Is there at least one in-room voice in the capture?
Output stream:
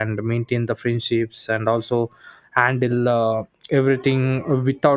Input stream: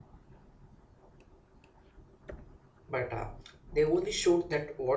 Yes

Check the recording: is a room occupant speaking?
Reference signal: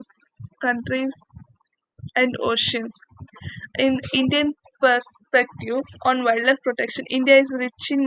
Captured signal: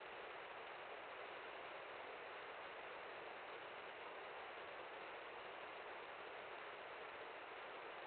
No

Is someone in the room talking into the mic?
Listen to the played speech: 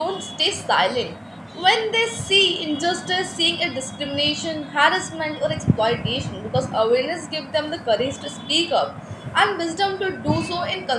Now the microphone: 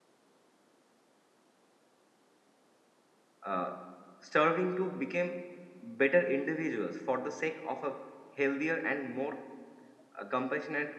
Yes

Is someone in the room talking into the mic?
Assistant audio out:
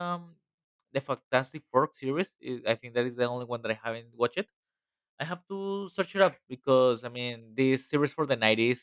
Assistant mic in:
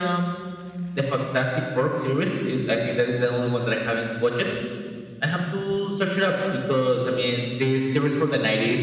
No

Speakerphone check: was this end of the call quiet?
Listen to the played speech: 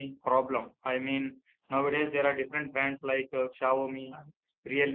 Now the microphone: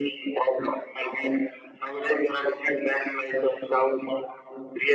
Yes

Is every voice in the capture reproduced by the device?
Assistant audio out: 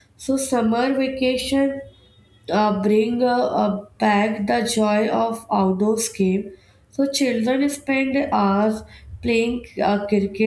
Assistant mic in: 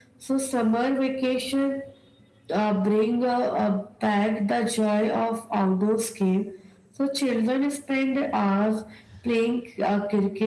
Yes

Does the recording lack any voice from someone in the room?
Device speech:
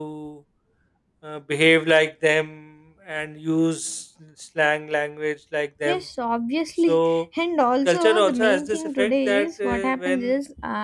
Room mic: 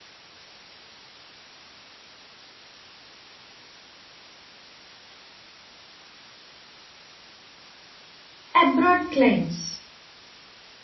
No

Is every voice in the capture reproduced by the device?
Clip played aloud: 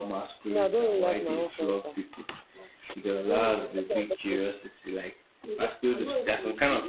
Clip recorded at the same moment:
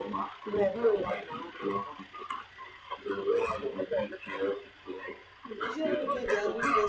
No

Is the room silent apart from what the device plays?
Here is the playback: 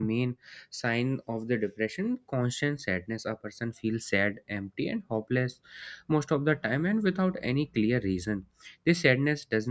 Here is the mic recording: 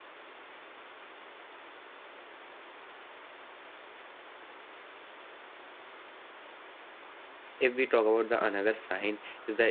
No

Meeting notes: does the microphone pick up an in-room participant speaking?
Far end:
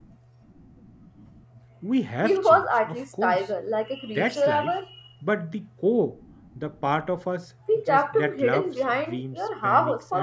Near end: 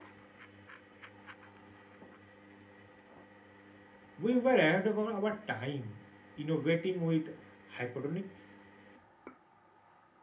Yes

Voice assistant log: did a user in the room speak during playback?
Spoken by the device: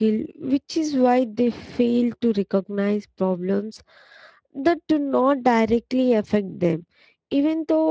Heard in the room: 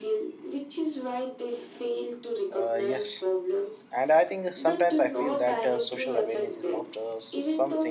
Yes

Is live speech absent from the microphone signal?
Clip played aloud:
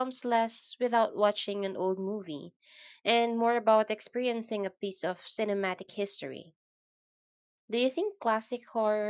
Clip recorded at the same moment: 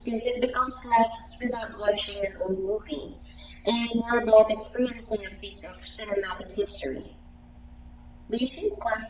Yes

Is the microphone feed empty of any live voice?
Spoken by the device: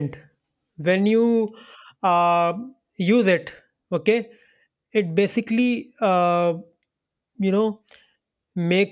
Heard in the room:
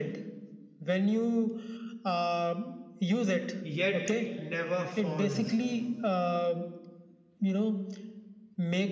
No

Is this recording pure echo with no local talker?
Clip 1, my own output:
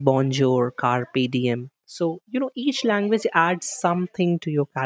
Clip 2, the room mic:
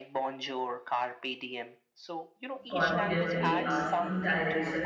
No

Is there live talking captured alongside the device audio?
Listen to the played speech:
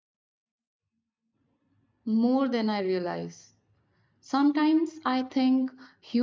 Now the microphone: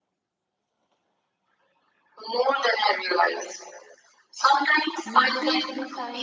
Yes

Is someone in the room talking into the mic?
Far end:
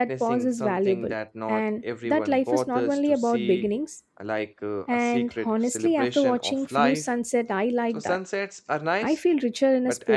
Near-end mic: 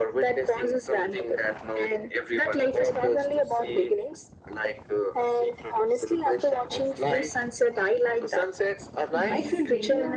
Yes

